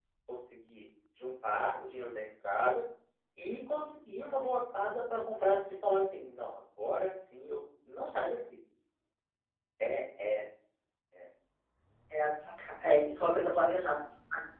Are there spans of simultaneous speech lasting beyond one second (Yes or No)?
No